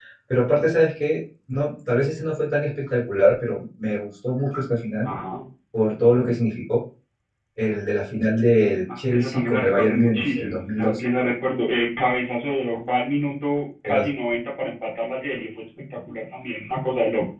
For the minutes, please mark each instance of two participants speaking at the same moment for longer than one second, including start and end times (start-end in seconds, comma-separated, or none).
9.0-11.0